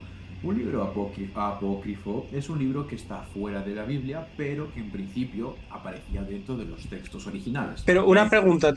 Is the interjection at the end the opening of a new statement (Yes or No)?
Yes